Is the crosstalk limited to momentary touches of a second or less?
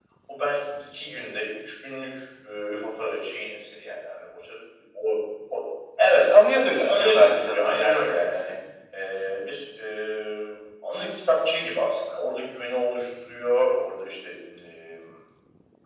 No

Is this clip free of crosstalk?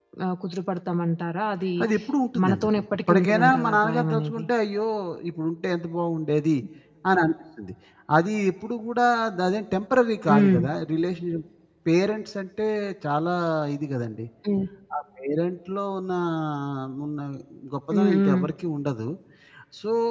No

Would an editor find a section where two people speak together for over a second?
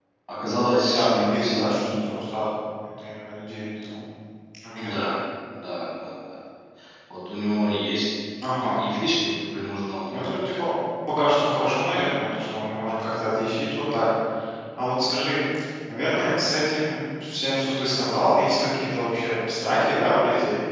Yes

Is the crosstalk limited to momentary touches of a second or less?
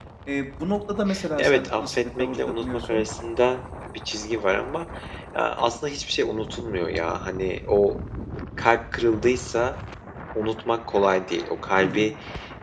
No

